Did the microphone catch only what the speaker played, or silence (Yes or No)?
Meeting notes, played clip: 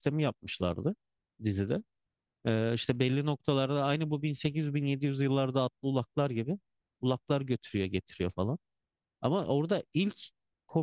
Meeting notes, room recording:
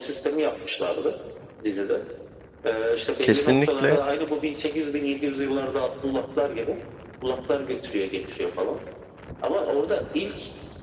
No